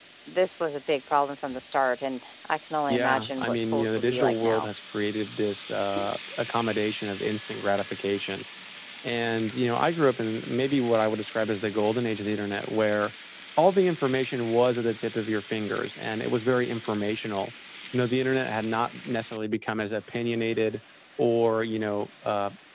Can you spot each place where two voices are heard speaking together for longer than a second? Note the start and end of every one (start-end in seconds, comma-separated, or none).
2.9-4.7